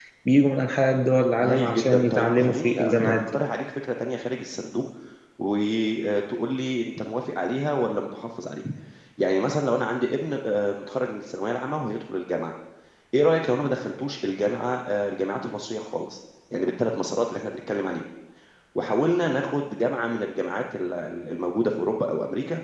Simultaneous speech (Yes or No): Yes